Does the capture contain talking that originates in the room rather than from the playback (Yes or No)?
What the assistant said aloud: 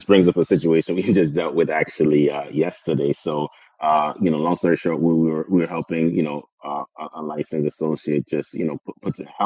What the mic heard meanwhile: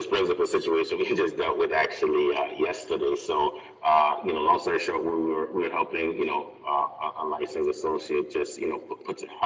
No